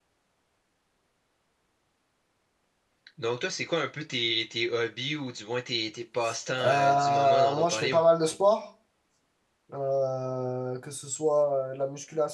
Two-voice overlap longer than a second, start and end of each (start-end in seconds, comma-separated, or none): 6.6-8.0